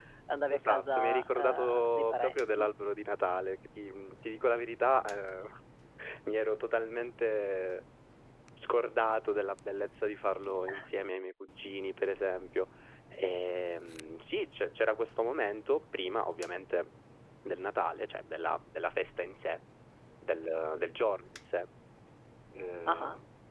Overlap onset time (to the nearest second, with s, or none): 1 s